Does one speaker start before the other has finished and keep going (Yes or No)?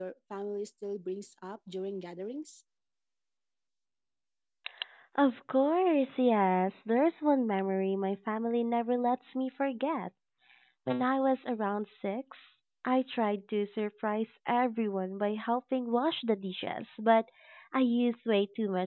No